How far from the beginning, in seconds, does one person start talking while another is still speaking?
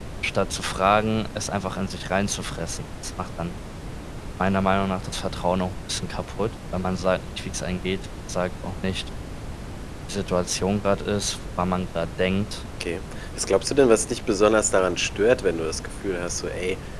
none

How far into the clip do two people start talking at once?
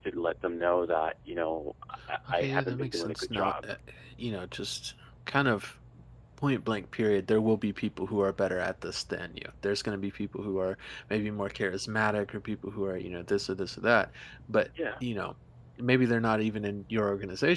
2.3 s

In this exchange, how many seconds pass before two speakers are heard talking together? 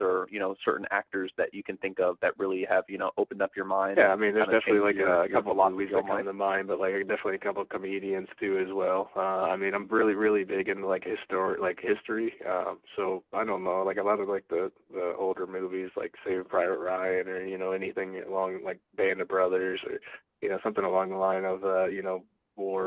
4.0 s

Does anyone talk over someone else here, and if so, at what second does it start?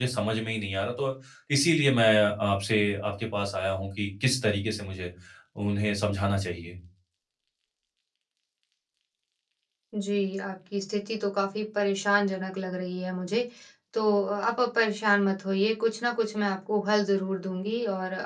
none

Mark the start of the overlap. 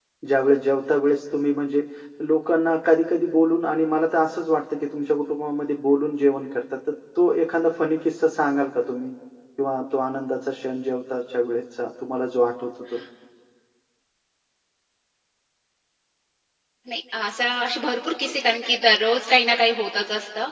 none

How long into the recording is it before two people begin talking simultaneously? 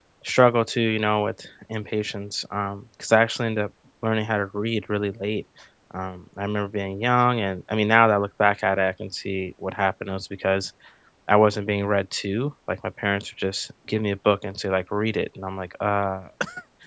none

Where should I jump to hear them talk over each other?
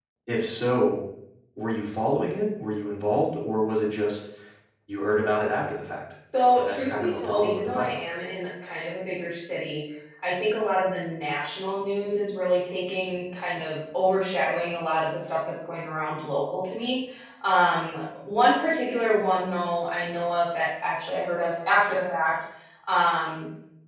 6.6 s

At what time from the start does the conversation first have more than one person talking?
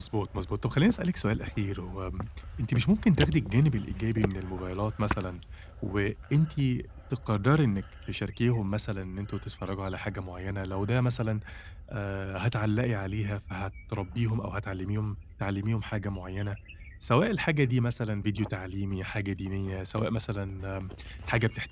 none

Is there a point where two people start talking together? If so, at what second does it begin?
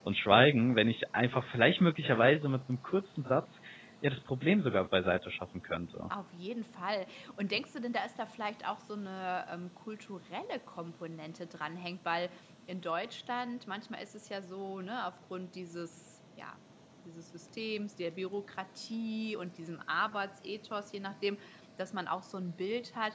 none

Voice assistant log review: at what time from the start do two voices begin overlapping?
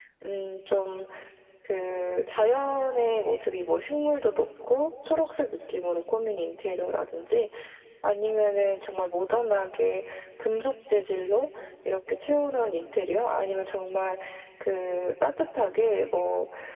none

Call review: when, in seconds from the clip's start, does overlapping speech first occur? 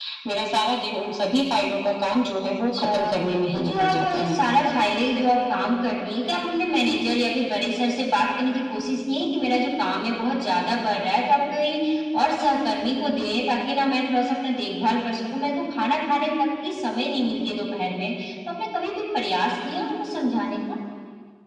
2.7 s

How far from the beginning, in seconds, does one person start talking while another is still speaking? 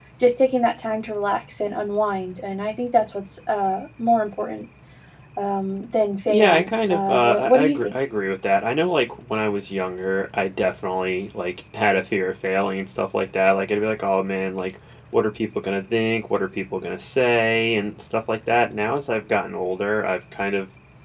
6.3 s

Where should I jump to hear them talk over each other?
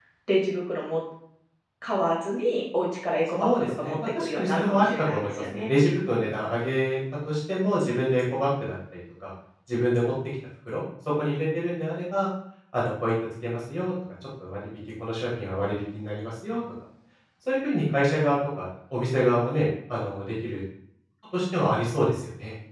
3.4 s

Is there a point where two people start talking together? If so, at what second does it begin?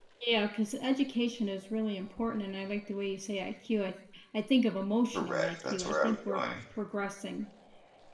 5.1 s

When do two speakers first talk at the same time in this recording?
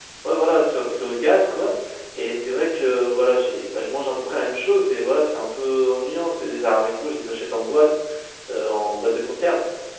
none

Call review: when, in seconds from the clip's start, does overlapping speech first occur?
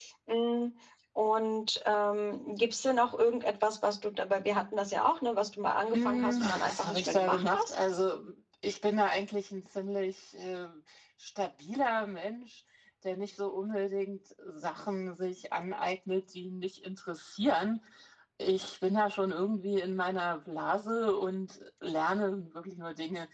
5.9 s

